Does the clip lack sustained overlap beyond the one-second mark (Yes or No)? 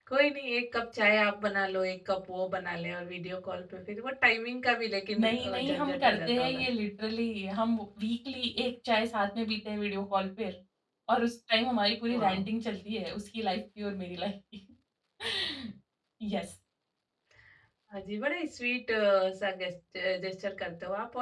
No